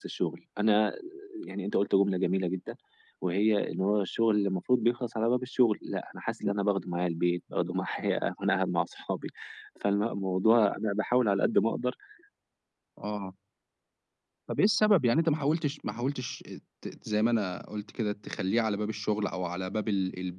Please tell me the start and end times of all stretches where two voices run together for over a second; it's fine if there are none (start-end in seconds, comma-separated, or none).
none